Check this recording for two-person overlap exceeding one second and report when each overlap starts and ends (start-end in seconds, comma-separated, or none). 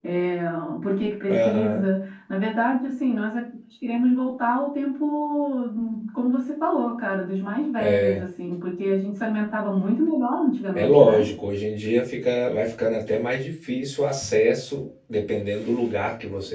none